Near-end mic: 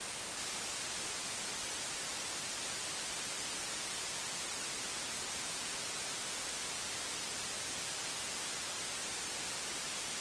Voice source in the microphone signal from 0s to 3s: neither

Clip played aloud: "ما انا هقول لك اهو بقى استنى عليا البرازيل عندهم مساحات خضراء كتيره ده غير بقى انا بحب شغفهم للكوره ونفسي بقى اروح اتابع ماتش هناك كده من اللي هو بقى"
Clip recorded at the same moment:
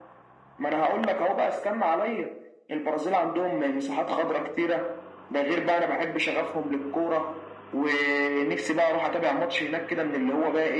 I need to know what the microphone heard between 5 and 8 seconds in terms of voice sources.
echo only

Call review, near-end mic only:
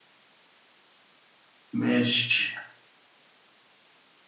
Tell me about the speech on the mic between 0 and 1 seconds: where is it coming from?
neither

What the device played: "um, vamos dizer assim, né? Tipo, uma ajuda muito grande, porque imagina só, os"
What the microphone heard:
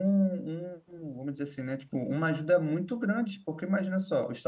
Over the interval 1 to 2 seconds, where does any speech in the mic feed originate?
echo only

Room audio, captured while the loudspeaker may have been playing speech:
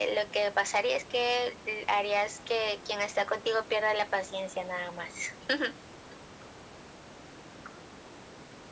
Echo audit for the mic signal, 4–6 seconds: echo only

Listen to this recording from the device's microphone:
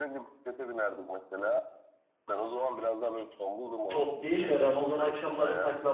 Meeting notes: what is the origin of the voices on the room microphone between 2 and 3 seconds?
echo only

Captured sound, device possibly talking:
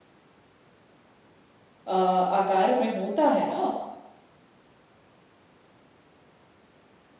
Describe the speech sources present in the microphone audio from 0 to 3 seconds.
user only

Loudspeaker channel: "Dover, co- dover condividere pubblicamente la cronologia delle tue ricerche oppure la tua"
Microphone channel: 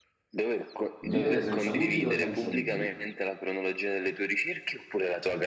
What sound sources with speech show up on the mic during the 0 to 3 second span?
both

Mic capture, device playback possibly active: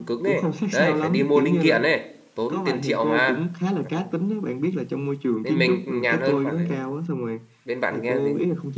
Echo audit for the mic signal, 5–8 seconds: both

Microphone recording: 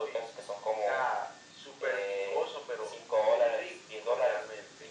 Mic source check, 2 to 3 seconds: echo only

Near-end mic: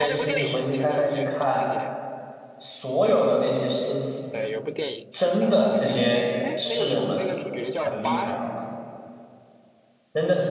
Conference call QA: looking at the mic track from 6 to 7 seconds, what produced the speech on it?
both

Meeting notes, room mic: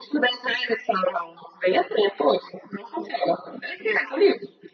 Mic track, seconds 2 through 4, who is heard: echo only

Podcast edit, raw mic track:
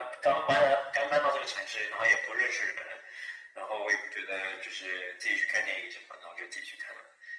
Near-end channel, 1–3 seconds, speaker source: echo only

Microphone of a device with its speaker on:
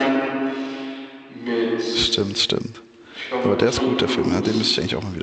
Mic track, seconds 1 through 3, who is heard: both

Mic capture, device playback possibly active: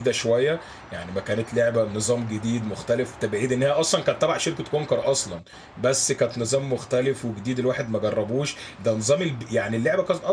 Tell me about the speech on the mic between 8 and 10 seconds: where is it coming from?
user only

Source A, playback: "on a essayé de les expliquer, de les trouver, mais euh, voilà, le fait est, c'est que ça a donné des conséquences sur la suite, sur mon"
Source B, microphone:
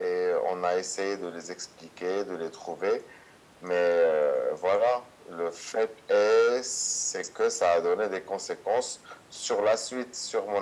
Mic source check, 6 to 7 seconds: echo only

